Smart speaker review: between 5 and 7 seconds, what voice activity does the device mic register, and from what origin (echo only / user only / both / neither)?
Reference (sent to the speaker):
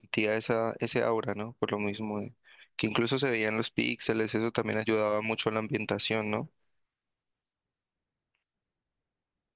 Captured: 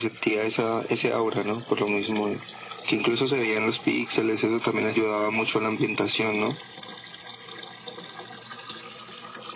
echo only